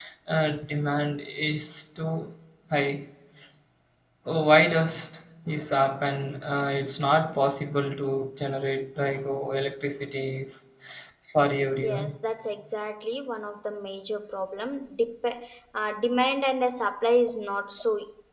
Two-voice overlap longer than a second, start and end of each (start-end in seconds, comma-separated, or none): none